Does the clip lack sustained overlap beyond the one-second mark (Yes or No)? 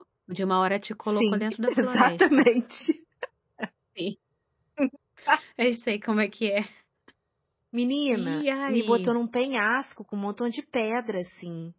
No